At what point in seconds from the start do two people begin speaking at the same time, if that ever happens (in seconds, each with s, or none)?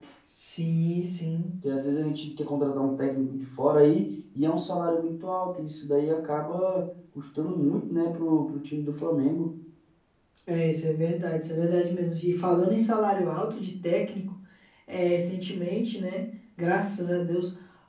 none